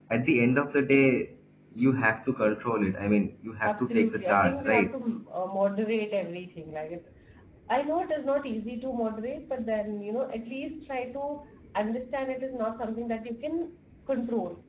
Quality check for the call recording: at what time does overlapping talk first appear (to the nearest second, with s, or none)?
4 s